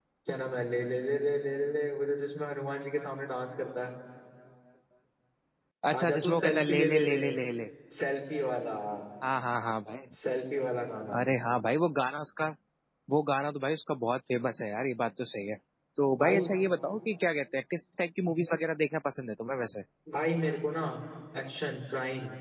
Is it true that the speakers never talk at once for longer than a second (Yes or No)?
No